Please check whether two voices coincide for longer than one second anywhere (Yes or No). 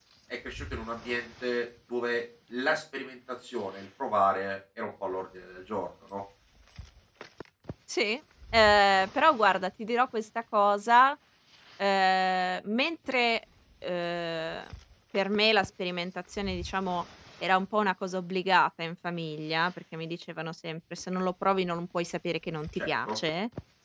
No